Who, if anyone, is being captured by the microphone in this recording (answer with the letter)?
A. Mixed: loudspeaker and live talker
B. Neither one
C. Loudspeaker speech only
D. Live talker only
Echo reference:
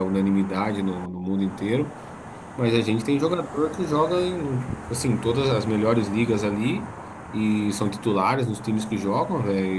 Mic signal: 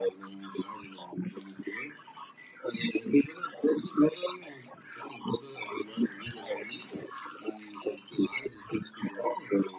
C